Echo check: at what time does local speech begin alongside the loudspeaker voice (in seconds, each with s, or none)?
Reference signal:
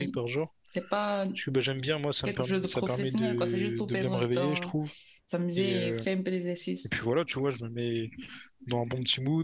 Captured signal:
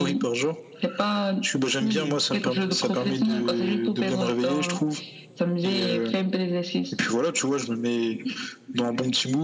1.8 s